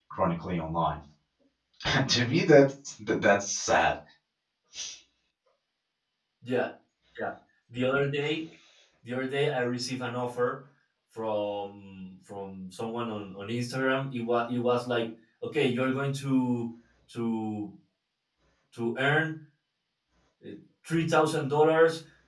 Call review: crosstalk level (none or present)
none